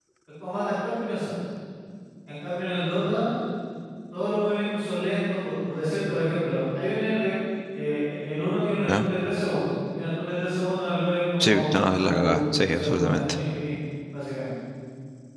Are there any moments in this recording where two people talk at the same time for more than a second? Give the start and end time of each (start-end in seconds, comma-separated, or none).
11.4-13.2